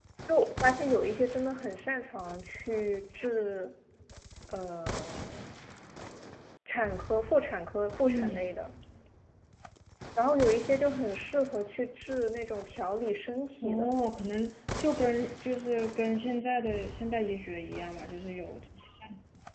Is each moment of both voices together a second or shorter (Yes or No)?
Yes